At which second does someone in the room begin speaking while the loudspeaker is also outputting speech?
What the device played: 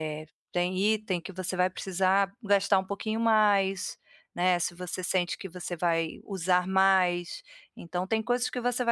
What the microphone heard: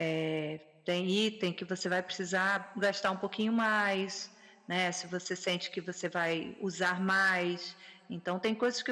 none

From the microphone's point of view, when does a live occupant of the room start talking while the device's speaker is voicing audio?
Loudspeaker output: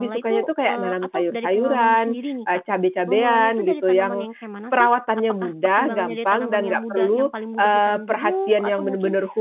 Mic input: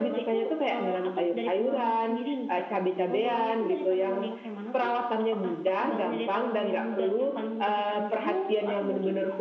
none

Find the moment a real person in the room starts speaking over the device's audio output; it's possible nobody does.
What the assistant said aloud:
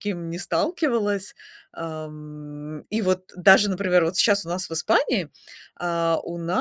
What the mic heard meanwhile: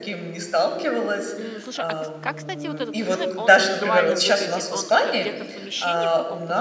1.4 s

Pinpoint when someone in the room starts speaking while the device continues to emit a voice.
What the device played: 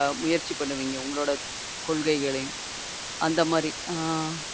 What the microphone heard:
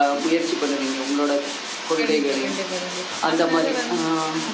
2.0 s

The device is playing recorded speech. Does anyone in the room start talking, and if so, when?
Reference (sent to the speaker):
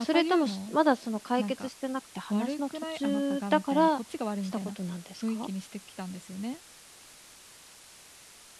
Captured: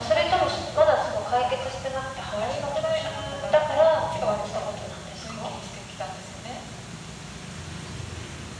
none

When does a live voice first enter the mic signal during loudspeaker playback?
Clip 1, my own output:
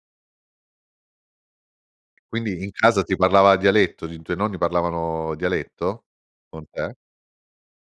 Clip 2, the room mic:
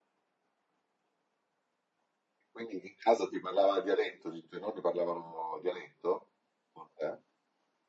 none

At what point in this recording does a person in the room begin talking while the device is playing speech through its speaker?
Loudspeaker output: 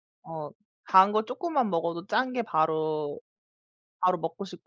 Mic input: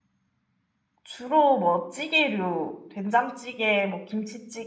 1.0 s

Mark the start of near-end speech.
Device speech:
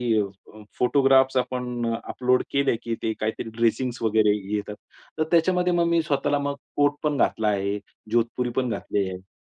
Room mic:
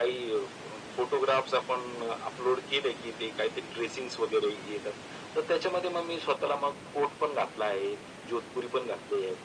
none

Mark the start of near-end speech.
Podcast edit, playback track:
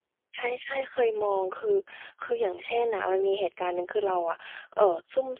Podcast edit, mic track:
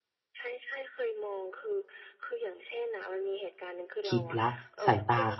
4.1 s

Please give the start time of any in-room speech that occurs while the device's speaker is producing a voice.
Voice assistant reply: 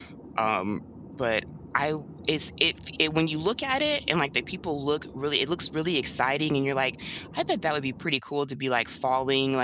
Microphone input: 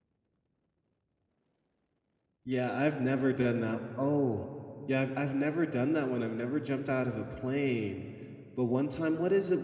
2.4 s

